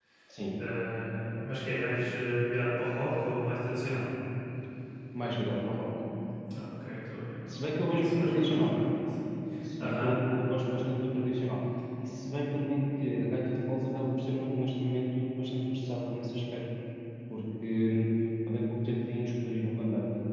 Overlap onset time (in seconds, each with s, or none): 7.5 s